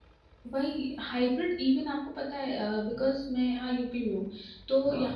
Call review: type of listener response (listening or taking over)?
listening